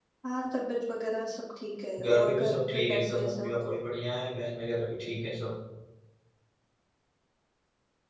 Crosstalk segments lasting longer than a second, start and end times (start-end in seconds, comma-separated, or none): 2.0-3.6